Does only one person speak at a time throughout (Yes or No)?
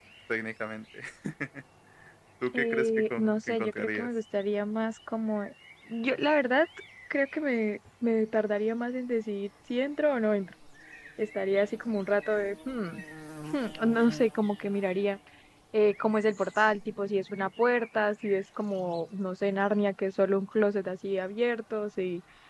No